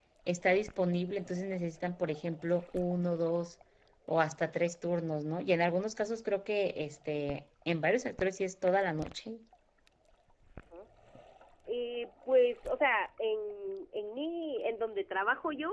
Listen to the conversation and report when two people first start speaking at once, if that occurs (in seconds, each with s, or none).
none